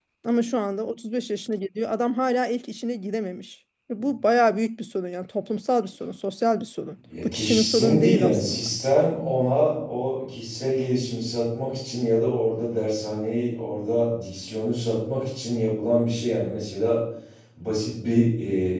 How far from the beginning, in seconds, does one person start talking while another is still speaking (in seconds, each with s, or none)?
7.1 s